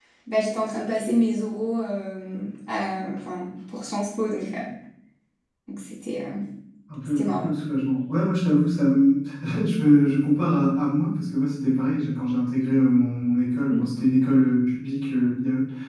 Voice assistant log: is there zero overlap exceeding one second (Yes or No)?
Yes